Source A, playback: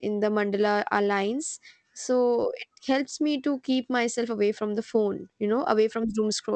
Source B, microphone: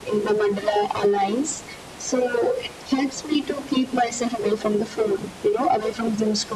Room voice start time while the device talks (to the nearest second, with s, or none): none